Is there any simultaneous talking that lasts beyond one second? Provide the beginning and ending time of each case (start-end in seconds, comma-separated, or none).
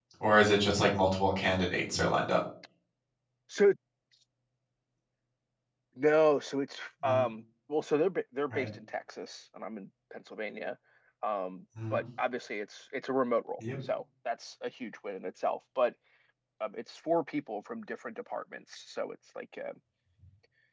none